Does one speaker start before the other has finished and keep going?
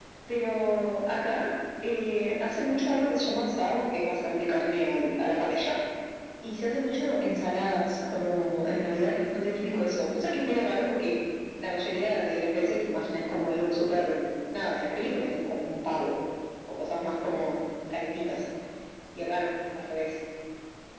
No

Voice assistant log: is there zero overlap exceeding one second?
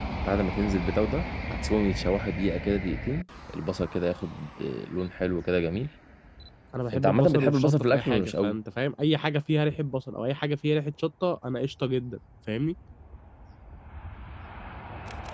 No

